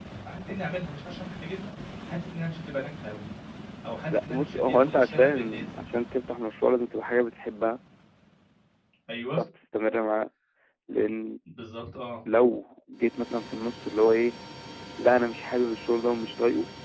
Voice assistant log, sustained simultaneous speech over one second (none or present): present